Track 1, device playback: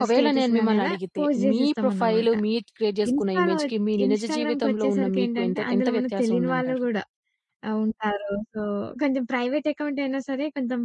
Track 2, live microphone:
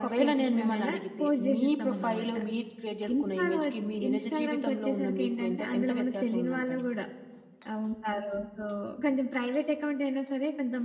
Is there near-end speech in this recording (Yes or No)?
No